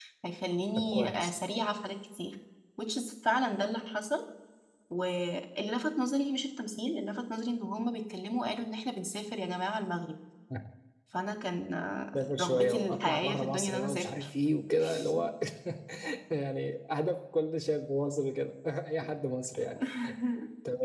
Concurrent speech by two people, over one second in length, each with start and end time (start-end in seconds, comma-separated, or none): 12.2-14.1